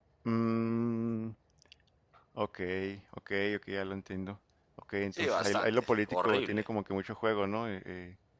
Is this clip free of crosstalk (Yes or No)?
No